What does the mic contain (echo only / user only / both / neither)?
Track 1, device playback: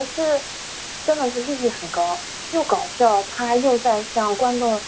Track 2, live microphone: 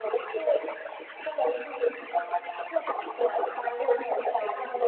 echo only